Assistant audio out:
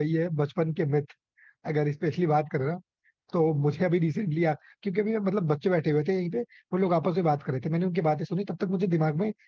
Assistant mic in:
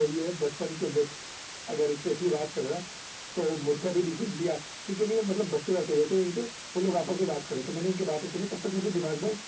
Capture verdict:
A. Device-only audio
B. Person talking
A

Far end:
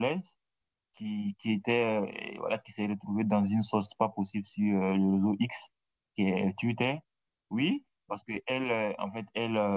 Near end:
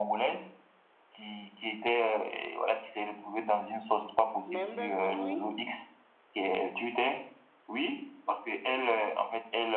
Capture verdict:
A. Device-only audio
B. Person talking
B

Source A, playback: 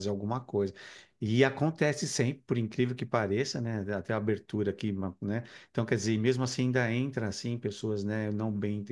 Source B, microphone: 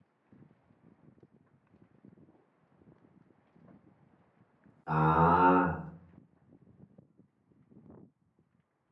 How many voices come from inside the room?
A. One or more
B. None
A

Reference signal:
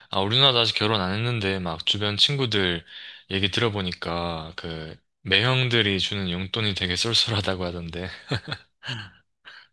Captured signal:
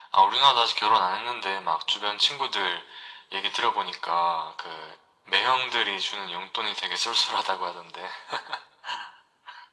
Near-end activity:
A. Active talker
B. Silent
B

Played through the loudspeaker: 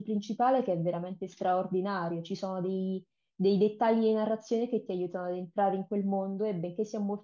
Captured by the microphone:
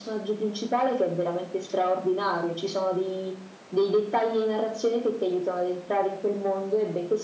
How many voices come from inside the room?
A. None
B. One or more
A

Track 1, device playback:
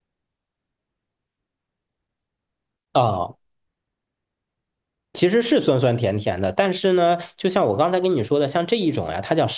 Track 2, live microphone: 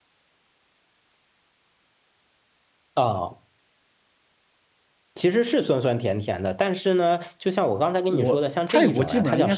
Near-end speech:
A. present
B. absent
A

